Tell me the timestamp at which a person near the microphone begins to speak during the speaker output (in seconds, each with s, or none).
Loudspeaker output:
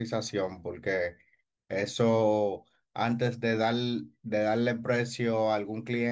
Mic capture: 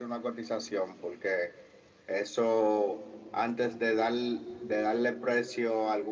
none